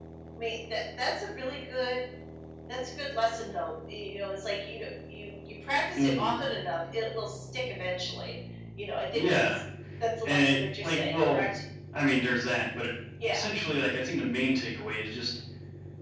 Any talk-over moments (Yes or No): Yes